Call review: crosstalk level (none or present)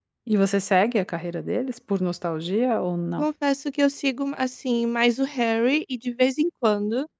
none